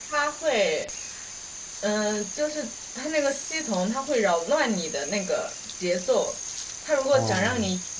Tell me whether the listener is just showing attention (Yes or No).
Yes